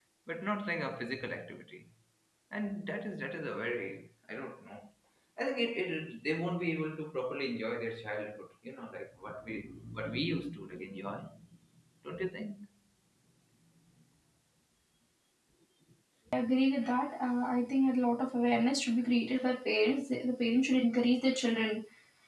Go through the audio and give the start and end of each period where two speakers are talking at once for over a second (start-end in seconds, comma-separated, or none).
none